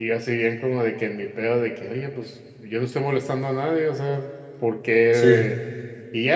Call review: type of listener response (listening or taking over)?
listening